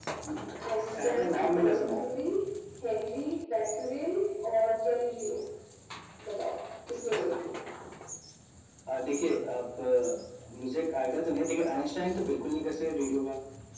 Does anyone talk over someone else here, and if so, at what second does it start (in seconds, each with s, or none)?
0.8 s